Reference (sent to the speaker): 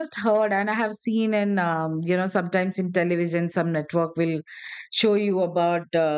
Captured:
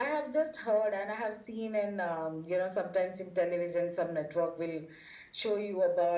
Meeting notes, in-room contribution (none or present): none